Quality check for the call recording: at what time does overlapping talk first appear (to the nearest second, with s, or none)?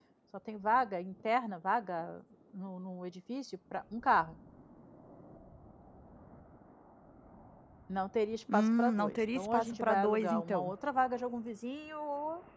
9 s